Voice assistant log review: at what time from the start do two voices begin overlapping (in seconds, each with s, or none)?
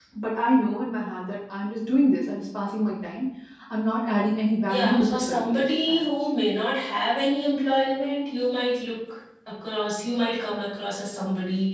4.7 s